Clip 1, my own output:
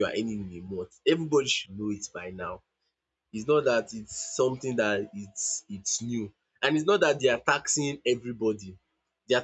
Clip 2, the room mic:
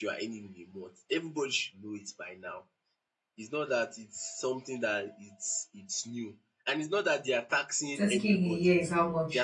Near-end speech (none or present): present